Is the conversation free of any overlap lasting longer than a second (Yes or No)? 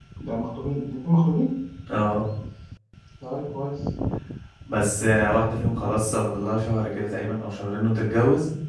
Yes